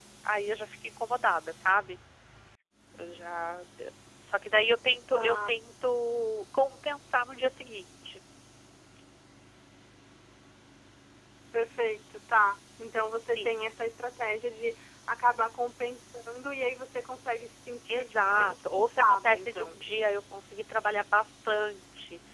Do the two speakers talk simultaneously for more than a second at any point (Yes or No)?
Yes